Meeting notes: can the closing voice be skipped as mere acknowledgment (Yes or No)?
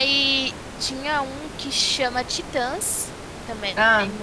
No